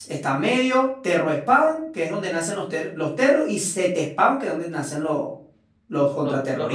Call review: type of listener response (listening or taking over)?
taking over